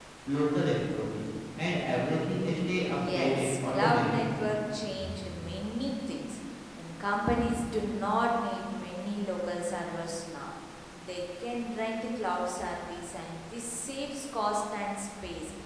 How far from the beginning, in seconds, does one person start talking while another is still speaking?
2.8 s

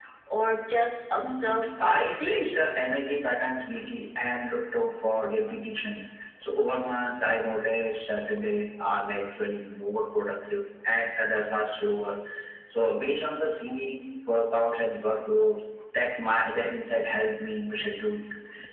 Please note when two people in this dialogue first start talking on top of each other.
1.2 s

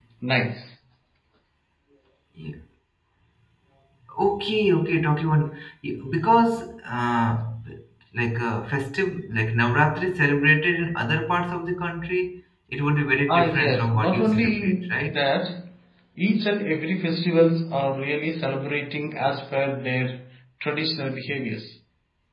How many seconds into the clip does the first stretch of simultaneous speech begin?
13.3 s

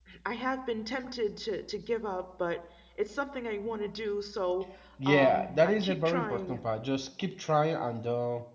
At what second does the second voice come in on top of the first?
5.1 s

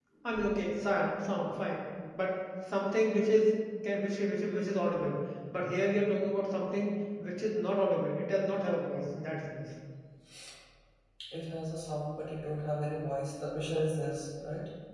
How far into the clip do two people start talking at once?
none

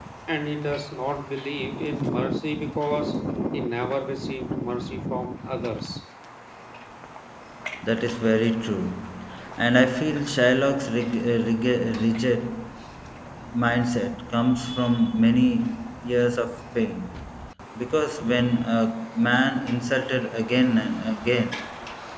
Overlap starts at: none

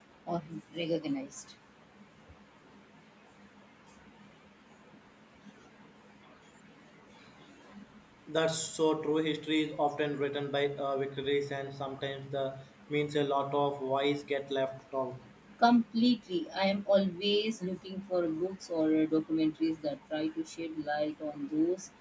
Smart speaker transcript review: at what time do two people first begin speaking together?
none

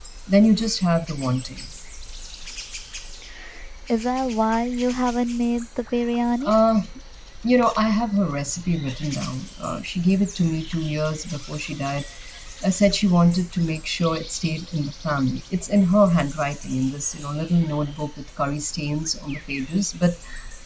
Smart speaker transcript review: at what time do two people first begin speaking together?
none

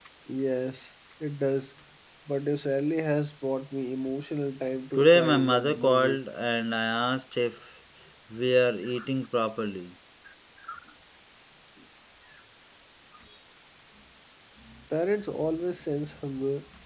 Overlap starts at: 4.9 s

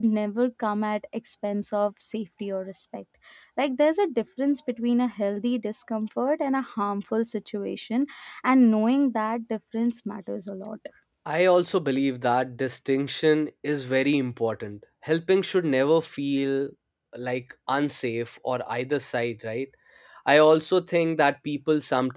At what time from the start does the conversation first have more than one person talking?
none

